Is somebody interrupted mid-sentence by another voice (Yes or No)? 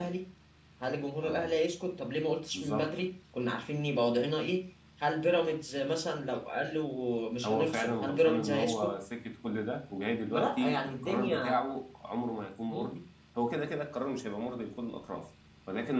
Yes